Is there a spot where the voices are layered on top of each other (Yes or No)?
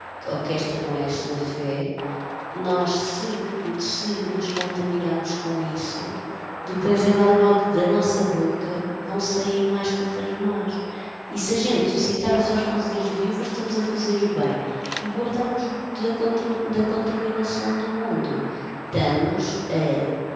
No